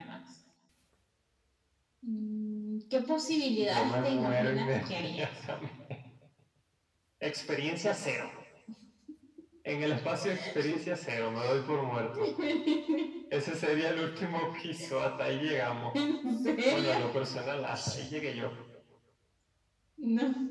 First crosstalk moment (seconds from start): 3.7 s

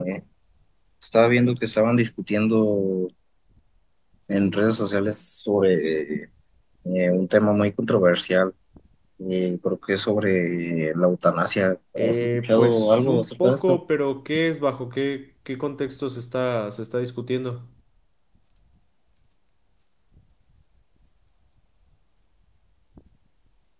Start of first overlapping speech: 12.0 s

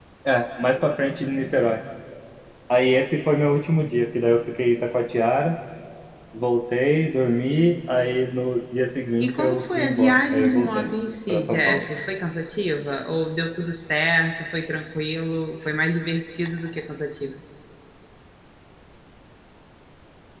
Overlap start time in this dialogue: 9.2 s

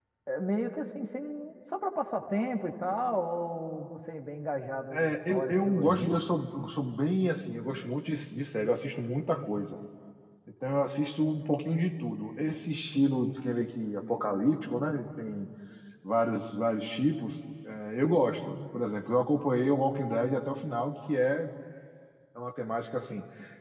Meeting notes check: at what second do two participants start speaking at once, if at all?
4.9 s

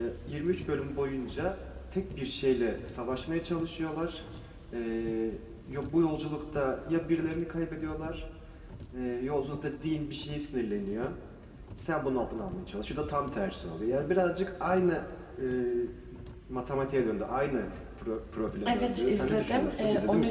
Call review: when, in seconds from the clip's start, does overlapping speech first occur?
18.6 s

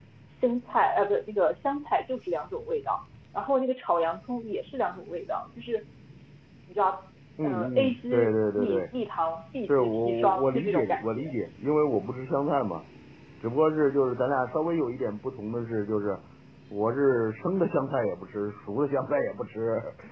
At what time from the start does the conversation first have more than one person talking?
7.4 s

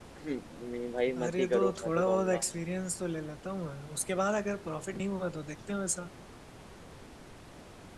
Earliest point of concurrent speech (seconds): 1.2 s

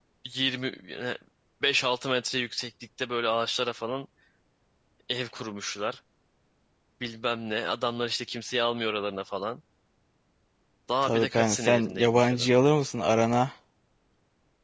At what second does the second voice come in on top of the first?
11.0 s

